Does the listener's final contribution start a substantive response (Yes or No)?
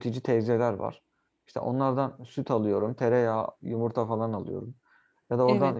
No